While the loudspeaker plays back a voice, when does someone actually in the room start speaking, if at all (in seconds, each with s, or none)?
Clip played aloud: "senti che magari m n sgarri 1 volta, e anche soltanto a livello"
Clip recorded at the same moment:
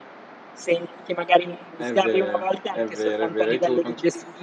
1.8 s